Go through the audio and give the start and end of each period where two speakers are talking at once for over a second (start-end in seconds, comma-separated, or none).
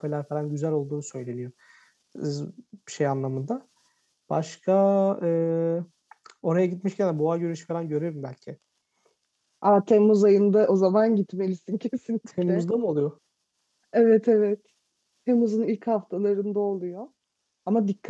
none